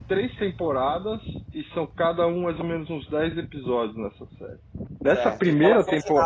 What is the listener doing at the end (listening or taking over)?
taking over